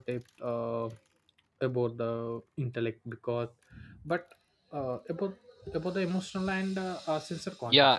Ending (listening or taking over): taking over